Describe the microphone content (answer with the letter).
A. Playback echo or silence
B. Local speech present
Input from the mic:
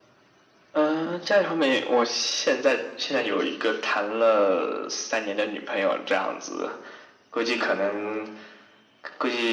A